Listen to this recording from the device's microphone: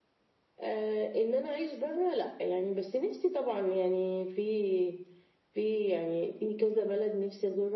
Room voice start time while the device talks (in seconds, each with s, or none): none